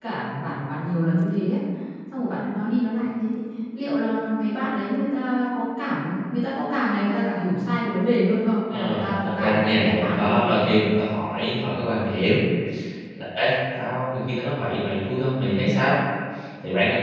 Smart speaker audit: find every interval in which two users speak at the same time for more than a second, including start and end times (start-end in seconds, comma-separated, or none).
8.7-10.5